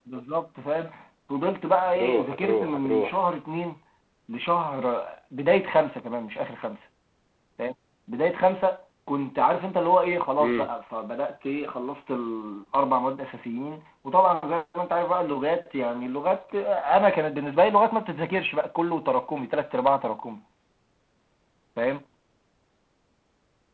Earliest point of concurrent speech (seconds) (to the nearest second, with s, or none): 2 s